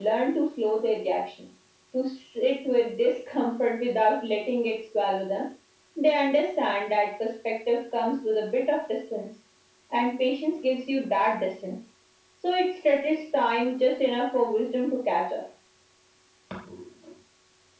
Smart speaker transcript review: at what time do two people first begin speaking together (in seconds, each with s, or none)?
none